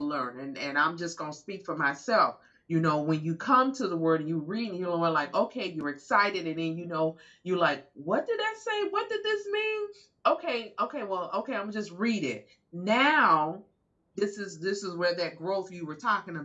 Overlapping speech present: No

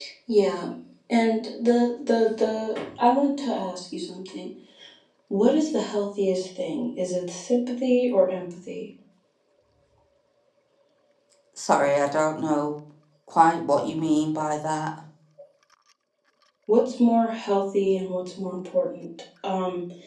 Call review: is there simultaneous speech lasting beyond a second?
No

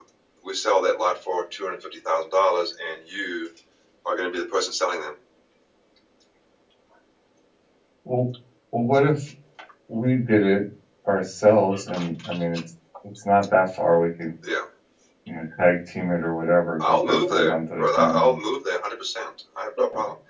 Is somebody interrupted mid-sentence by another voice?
Yes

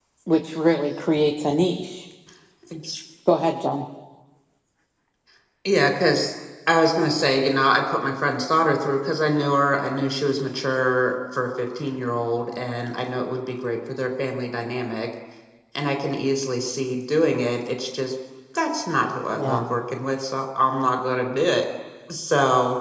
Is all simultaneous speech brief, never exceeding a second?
Yes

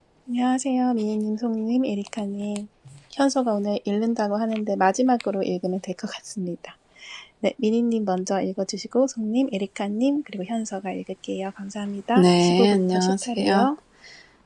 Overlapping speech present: Yes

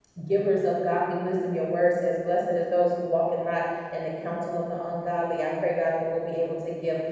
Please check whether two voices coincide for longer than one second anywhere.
No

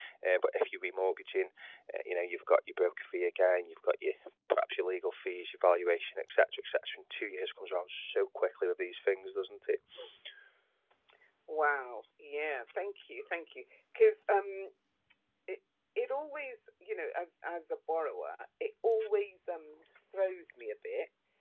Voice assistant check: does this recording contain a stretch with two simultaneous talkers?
No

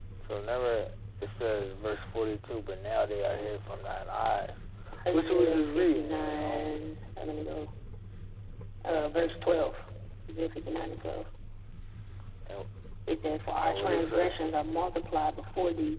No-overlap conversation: No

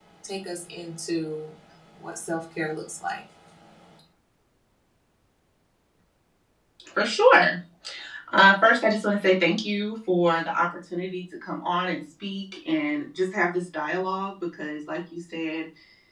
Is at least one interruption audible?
No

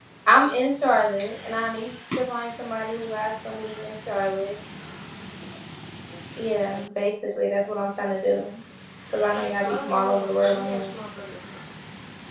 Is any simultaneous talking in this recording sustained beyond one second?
Yes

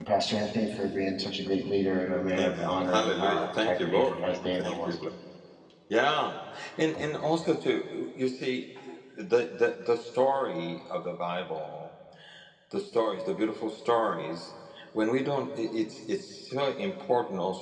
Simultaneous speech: Yes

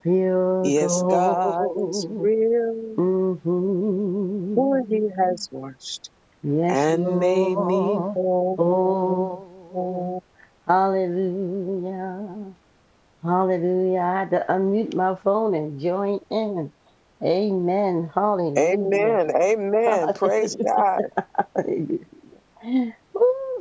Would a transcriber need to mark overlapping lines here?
Yes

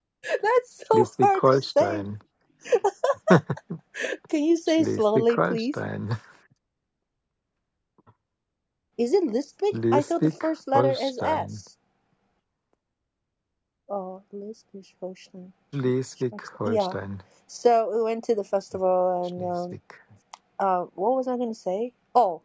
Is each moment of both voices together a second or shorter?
No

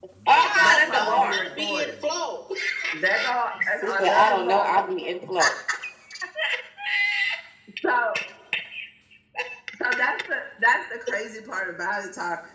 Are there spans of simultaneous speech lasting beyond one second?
Yes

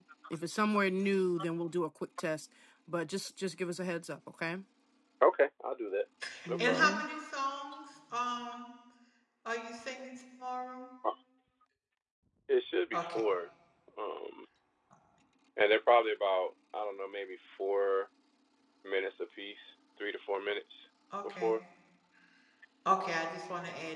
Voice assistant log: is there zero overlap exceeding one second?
Yes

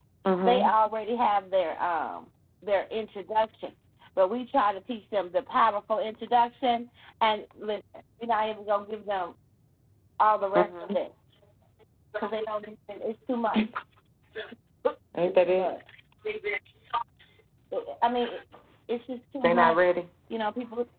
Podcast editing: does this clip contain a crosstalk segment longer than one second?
No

